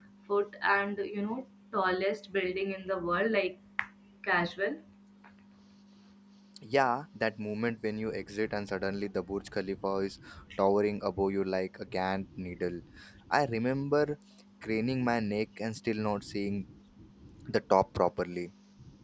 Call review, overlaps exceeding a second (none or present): none